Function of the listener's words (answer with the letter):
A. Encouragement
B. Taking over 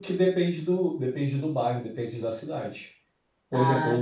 A